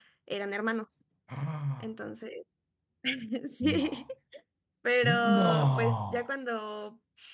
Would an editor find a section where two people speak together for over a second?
Yes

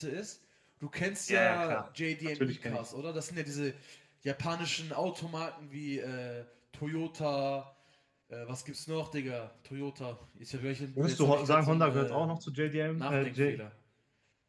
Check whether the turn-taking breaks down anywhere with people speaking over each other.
Yes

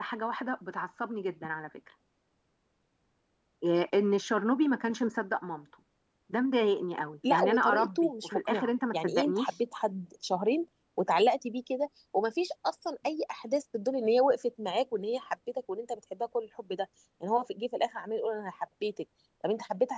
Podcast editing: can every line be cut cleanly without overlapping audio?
No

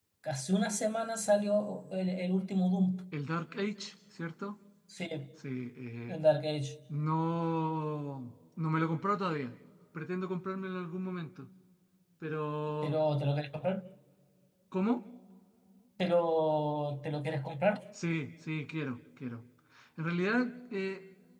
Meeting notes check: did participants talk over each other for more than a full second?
No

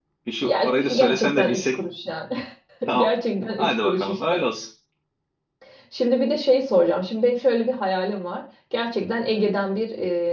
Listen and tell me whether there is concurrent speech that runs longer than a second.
Yes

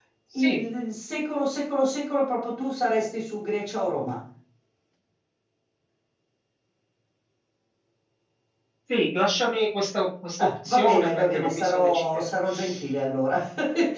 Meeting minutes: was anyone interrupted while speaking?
Yes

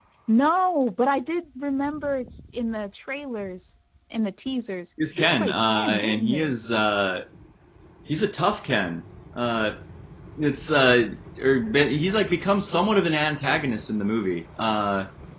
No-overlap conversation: No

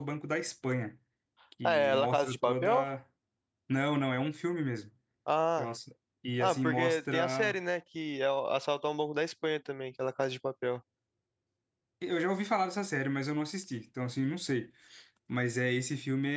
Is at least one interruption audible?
Yes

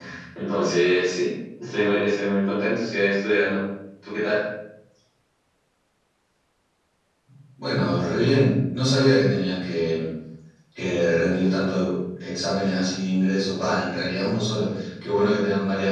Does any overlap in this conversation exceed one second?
No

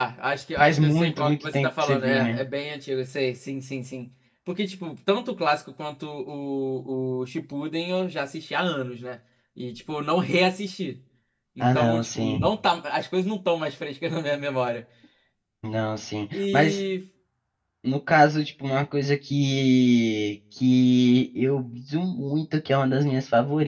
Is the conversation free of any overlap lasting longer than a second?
No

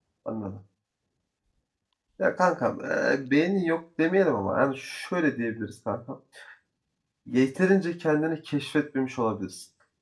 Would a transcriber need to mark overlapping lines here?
No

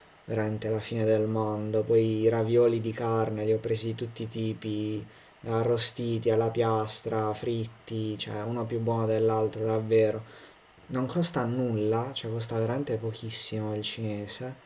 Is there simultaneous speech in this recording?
No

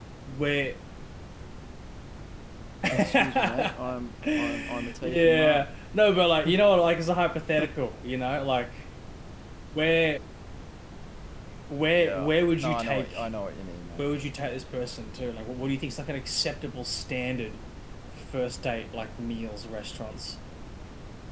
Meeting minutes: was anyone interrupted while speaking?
Yes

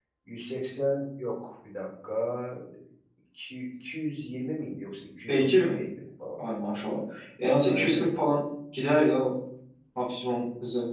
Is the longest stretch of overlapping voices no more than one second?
Yes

